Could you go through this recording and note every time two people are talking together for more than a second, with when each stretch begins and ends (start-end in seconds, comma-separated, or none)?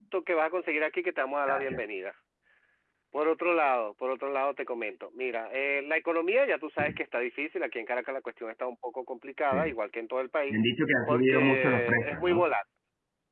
11.1-12.5